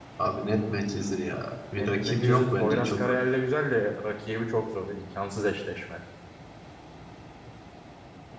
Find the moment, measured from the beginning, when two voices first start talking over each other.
1.7 s

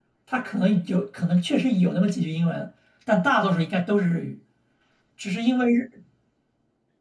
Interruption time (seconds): none

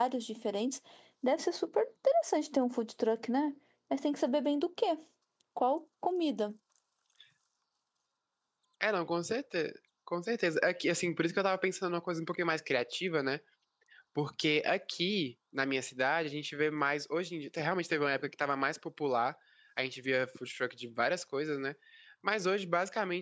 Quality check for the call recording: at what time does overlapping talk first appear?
none

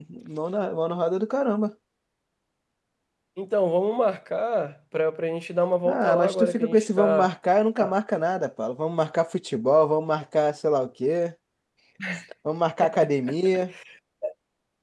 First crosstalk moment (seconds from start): 5.8 s

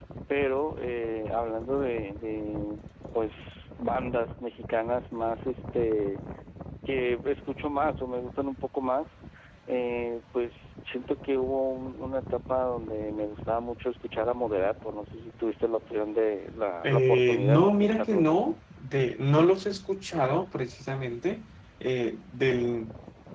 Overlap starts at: 16.8 s

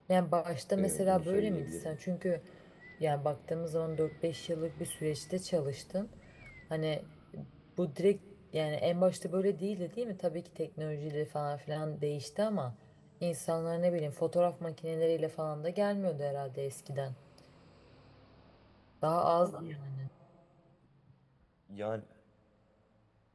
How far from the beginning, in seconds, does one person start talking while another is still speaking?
0.8 s

